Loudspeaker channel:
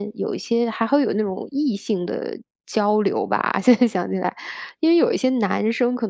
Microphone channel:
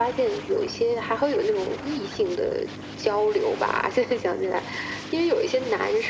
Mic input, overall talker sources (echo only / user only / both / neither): echo only